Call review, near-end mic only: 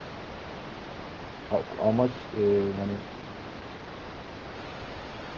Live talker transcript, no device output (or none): a- amaç e, yani